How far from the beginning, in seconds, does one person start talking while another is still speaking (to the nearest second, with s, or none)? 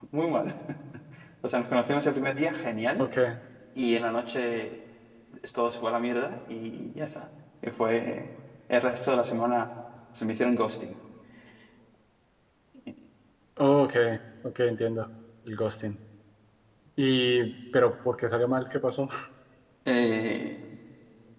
none